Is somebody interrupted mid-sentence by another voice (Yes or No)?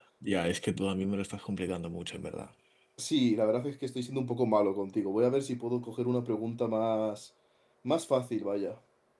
No